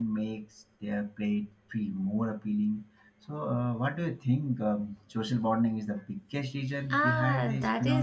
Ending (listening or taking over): taking over